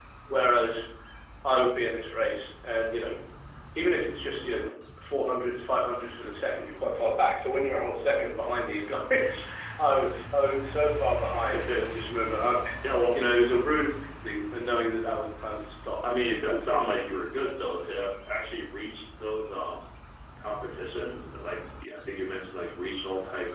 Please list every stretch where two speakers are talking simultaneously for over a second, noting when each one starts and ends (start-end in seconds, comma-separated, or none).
none